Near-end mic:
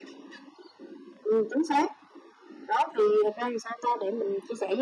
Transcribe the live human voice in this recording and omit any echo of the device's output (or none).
none